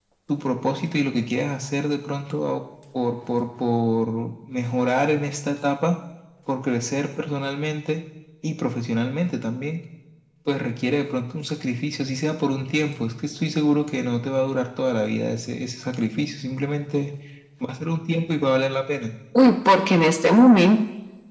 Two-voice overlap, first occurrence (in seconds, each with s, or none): none